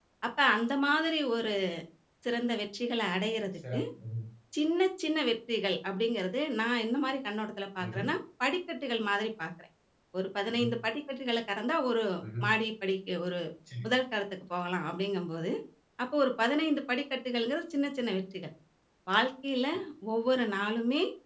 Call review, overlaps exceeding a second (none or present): none